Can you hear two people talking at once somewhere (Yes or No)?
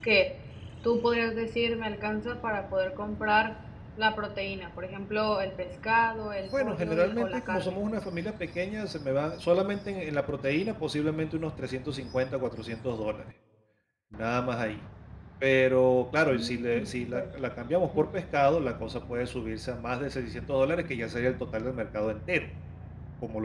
Yes